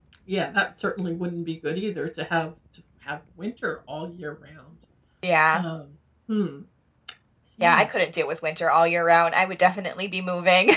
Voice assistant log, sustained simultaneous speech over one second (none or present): none